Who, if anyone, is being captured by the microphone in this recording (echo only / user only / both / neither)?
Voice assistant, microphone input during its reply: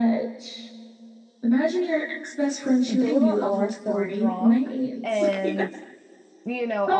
both